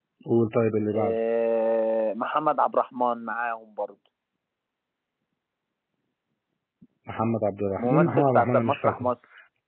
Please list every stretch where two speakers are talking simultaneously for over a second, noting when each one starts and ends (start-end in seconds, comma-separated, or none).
7.8-9.1